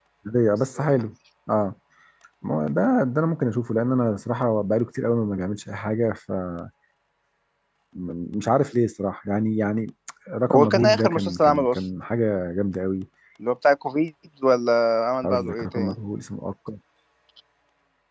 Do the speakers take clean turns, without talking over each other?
No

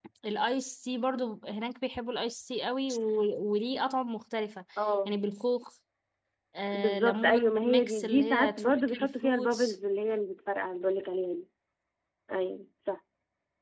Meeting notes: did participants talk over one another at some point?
Yes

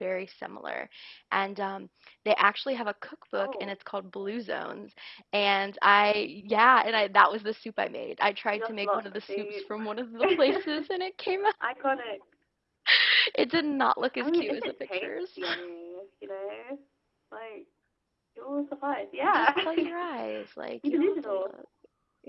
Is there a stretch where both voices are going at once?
Yes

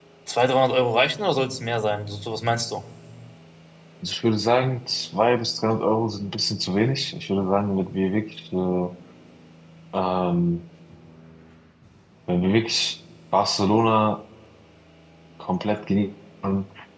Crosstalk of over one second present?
No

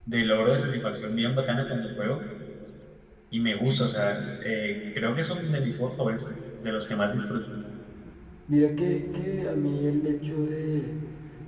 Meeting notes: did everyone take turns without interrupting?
Yes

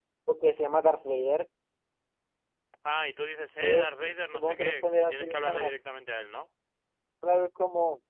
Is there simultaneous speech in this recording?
Yes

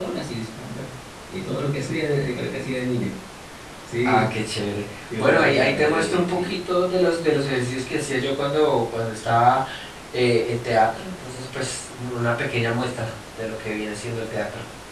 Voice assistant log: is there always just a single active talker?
No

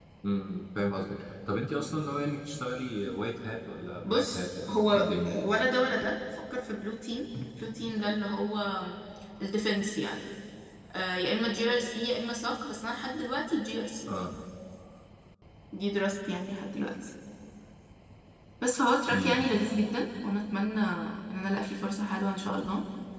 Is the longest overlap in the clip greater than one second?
Yes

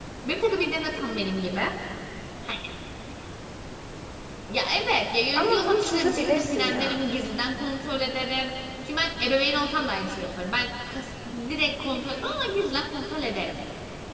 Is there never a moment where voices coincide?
No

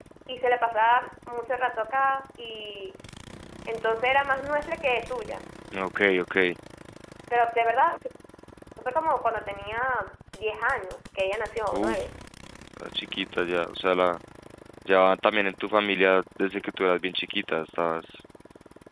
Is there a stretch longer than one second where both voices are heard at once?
No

